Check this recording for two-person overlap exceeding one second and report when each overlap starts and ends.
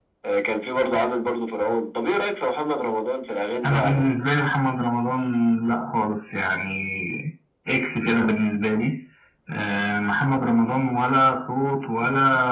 none

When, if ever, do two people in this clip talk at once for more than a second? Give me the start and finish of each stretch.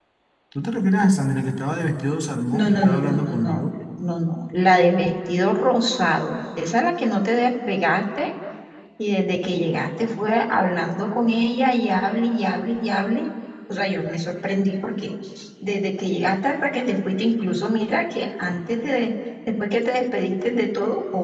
2.5-3.8

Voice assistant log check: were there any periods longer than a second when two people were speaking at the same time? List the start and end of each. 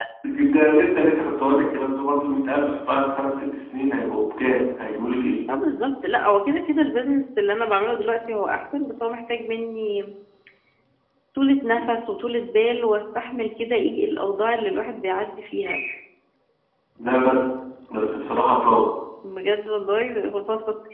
none

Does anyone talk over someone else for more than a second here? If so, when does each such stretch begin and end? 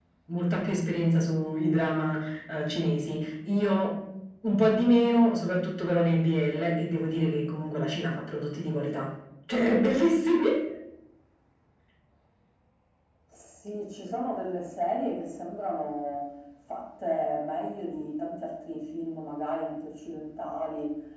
none

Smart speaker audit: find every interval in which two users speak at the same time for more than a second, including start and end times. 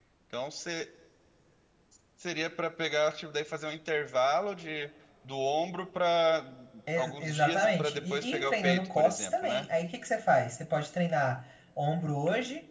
7.0-9.7

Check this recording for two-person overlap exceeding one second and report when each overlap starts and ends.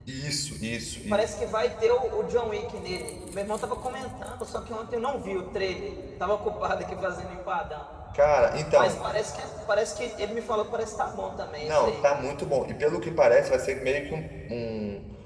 none

